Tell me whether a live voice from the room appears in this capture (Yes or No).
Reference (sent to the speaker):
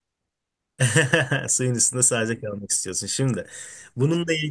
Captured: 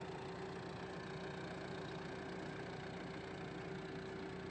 No